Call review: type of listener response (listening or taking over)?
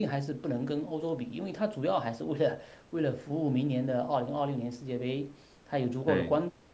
listening